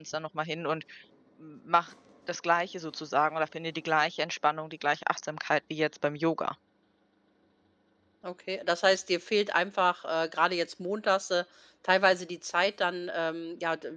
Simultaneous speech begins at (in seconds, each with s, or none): none